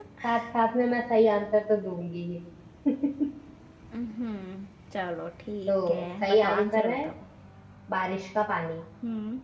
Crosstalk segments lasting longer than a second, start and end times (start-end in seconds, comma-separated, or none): 5.7-7.0